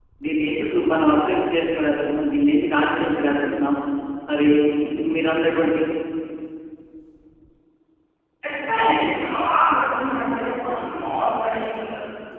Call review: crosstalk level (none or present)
none